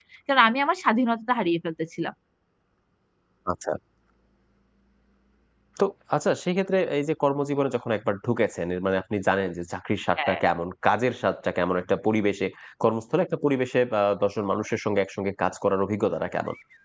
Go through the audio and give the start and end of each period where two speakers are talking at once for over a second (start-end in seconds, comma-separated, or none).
none